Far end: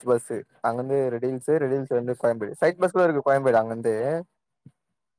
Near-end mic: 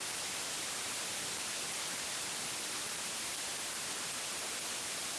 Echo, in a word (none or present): none